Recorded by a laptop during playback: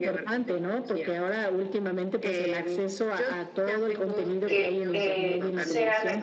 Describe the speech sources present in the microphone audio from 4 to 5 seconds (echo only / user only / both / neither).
both